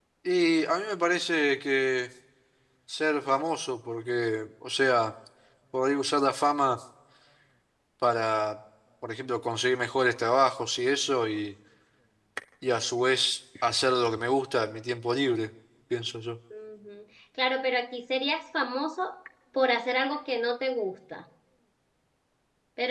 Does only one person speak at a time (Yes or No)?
Yes